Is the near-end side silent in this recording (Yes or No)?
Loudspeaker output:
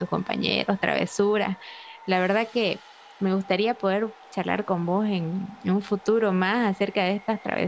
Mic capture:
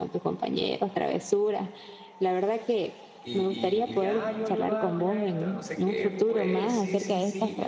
No